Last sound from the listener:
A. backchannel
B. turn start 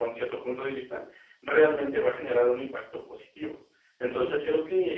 A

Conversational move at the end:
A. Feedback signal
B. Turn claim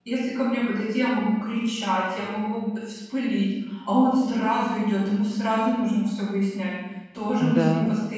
A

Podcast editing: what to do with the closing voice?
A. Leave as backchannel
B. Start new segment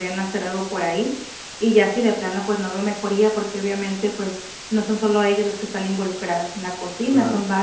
A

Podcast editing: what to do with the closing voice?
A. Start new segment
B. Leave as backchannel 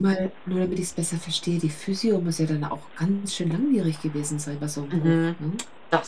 A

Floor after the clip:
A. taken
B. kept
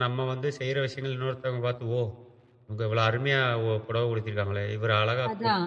A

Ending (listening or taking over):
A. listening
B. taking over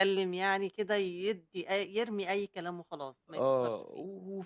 B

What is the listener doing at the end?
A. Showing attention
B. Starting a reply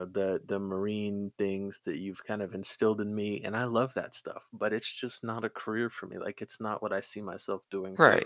B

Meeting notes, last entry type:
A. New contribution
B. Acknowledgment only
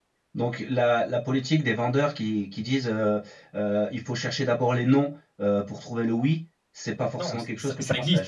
A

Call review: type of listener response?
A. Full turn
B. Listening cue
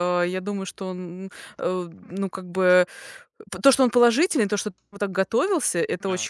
B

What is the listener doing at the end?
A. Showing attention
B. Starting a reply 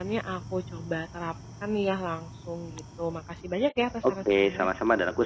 B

